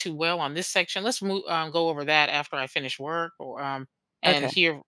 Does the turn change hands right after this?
No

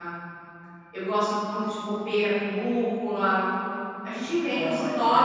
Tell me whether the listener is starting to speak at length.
No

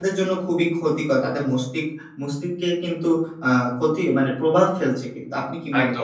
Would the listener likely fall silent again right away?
No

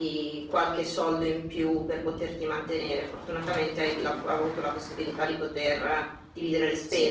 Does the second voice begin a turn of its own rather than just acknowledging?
Yes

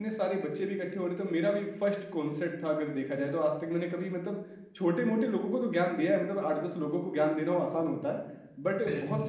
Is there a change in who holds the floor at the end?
No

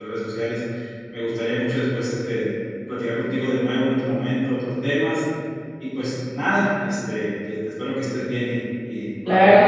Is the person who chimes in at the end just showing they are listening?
No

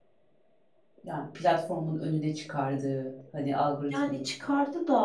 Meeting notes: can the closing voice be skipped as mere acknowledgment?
No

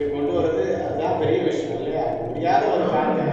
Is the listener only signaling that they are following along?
Yes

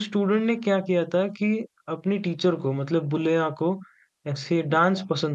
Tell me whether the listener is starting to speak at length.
No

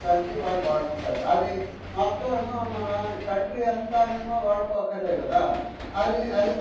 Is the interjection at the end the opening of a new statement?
No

